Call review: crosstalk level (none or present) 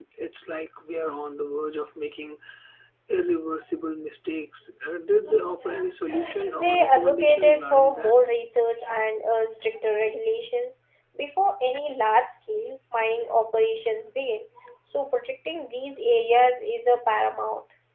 present